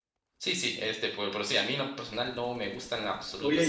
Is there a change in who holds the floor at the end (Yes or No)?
Yes